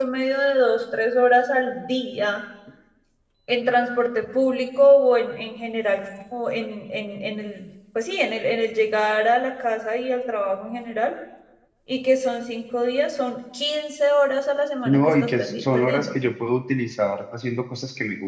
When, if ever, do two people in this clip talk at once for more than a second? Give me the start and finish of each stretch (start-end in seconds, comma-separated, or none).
14.8-16.2